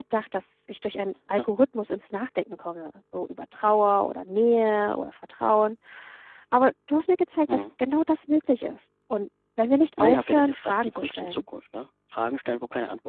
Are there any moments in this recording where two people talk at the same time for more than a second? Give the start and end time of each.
10.0-11.4

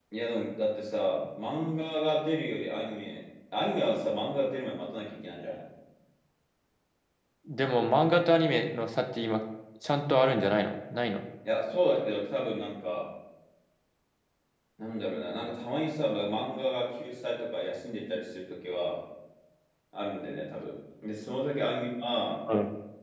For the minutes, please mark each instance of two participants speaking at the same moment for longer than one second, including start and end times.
none

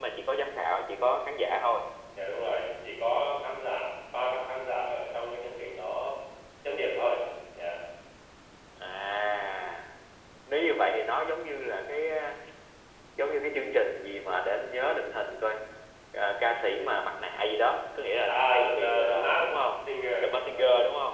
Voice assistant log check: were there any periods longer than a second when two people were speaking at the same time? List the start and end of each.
18.2-19.5

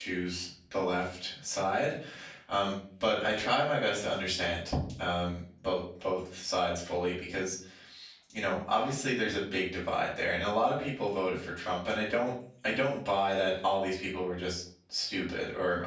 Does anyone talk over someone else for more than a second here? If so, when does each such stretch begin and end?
none

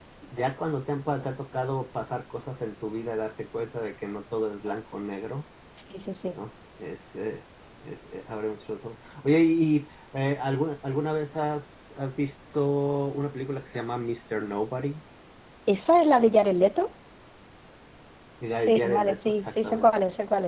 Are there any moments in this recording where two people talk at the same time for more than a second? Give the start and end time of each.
18.7-19.9

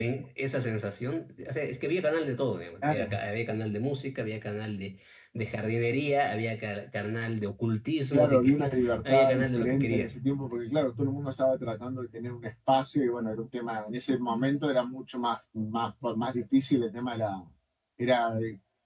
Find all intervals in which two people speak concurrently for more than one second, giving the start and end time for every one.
8.1-10.1

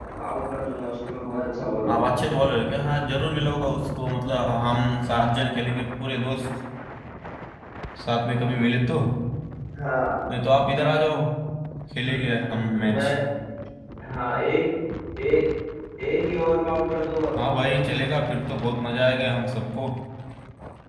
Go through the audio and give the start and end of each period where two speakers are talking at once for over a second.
none

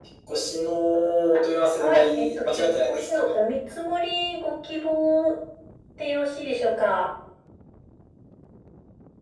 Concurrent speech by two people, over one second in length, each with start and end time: 1.8-3.4

